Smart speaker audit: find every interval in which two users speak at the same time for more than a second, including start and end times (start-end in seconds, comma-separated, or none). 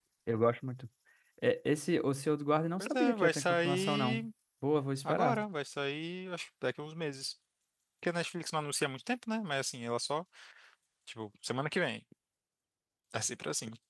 2.8-4.3